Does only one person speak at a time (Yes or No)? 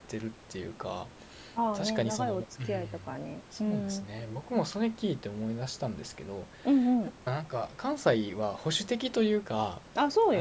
No